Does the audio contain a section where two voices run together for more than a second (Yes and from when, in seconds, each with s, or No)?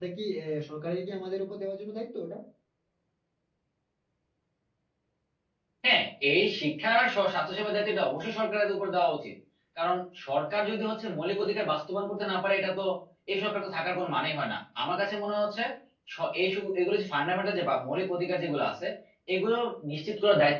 No